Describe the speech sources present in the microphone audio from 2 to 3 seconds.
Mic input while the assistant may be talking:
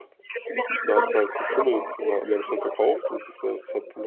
both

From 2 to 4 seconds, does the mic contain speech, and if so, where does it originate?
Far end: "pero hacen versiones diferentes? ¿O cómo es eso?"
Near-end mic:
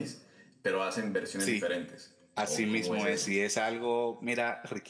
both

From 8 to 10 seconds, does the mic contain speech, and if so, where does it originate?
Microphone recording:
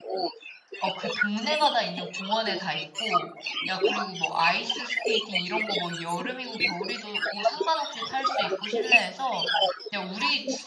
both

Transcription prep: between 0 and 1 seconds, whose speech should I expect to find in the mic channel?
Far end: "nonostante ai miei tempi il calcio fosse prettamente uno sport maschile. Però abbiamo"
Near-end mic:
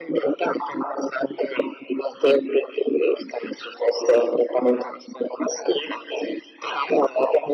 echo only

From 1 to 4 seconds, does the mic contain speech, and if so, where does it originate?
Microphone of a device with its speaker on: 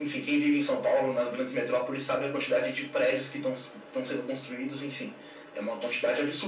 echo only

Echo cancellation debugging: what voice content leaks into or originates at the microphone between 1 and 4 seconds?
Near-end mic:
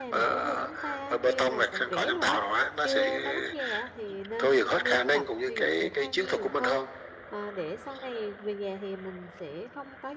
both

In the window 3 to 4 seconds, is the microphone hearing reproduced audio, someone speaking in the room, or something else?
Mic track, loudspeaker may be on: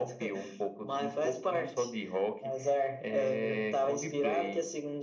echo only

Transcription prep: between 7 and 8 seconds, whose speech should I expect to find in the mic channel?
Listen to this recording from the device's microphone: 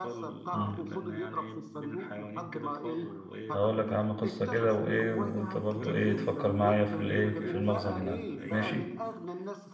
both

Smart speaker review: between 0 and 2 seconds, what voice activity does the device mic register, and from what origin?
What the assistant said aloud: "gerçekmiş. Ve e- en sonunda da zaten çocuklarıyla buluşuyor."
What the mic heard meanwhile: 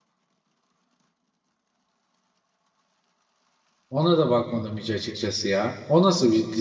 neither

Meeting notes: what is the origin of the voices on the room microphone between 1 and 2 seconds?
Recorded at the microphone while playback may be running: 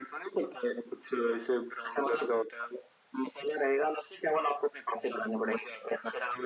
echo only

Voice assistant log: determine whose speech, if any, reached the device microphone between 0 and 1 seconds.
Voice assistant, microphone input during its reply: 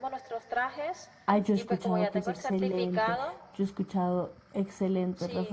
echo only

